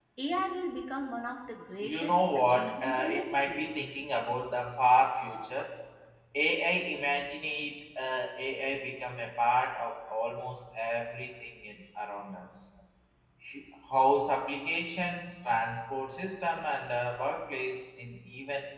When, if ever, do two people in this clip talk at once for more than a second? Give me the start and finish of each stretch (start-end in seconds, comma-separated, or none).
1.8-3.6